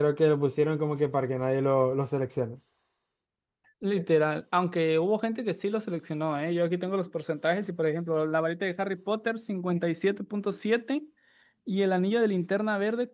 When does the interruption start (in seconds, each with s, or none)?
none